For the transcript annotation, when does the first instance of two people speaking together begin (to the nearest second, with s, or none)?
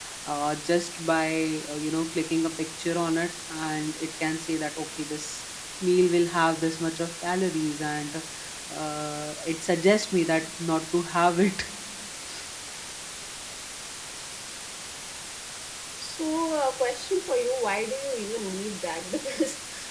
none